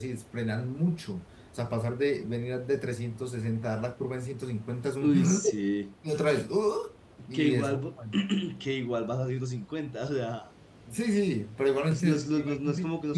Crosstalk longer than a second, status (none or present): present